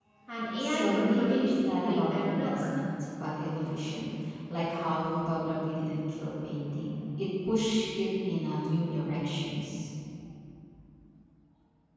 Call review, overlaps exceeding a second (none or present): present